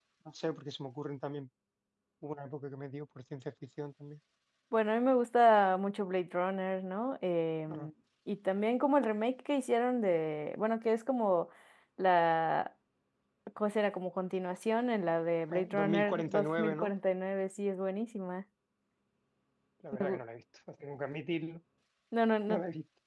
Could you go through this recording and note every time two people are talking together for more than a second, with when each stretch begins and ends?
15.5-16.9

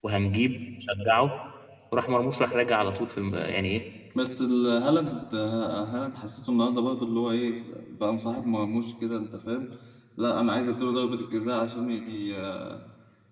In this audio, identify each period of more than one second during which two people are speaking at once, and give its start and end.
none

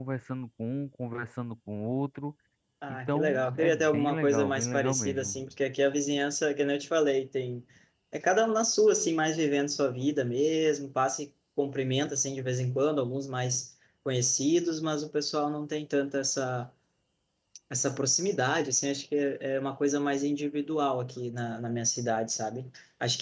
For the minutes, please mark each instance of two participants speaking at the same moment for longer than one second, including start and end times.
2.9-5.5

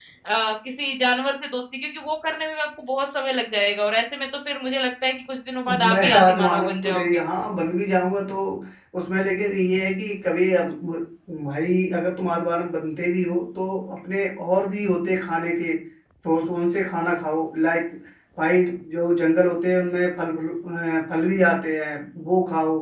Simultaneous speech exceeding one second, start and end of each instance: 5.9-7.2

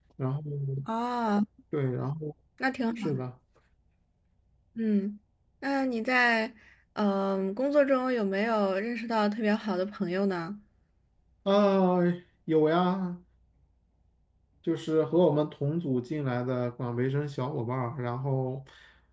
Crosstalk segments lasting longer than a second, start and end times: none

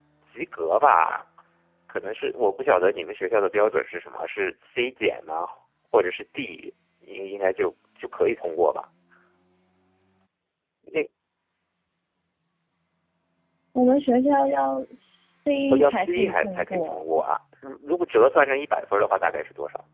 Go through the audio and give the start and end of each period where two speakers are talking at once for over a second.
15.7-17.0

